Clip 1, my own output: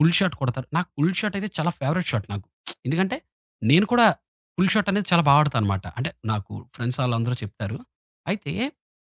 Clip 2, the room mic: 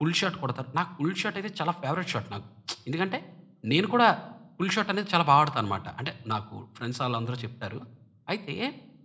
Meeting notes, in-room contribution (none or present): none